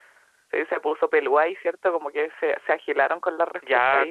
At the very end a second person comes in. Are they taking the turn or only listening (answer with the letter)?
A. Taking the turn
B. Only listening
A